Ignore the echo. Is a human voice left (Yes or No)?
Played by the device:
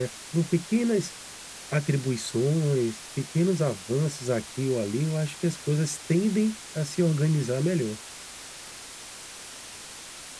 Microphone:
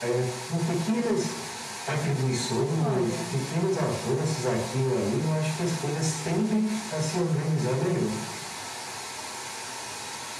Yes